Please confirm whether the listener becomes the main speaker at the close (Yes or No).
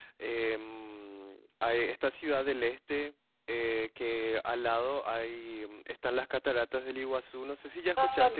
Yes